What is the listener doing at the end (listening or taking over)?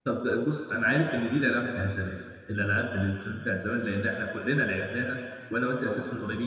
listening